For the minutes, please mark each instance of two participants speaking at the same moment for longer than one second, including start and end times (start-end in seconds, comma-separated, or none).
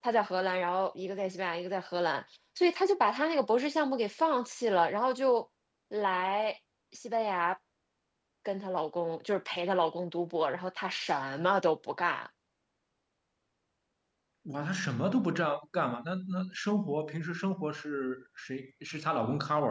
none